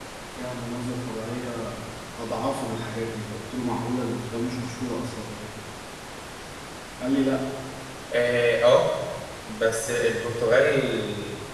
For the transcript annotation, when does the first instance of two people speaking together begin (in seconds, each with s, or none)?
none